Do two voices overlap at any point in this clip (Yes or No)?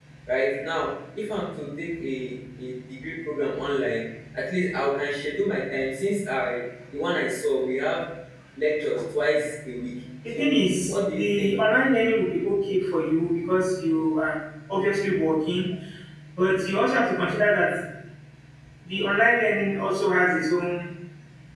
Yes